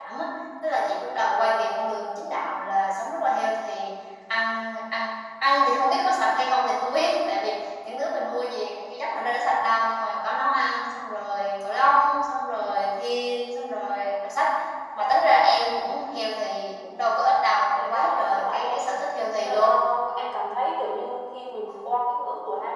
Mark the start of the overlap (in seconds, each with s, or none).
17.7 s